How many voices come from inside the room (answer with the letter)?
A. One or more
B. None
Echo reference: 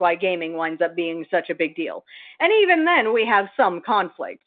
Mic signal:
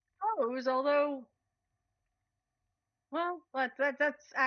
A